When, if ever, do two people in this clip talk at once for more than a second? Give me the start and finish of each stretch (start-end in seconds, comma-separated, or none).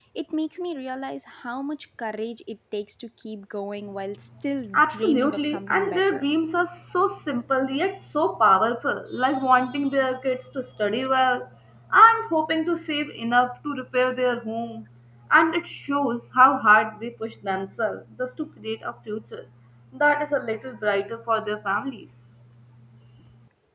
4.7-6.2